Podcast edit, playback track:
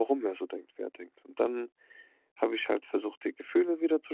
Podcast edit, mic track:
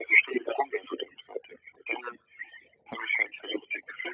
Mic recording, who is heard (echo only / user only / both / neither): echo only